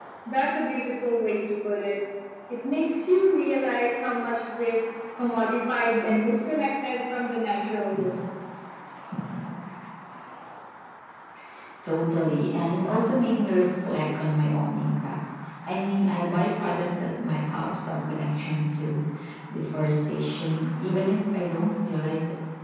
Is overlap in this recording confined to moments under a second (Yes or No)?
Yes